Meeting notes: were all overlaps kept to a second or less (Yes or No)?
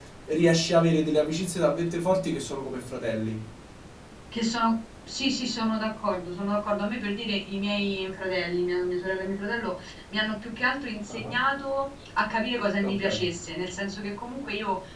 Yes